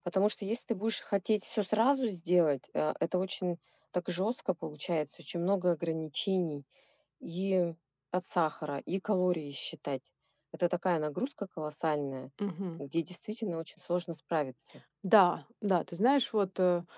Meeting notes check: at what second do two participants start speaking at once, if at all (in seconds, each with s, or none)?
none